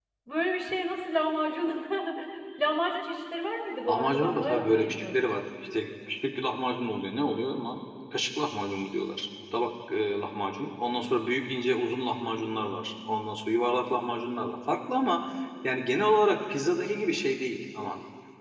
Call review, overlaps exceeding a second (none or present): present